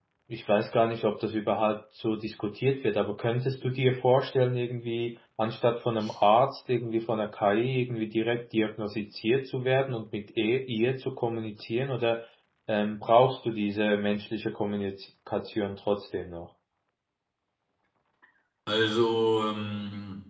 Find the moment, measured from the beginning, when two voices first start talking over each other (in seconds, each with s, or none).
none